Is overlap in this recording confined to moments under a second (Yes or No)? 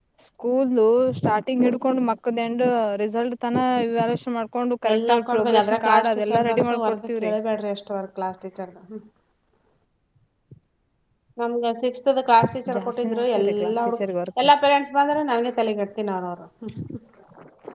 No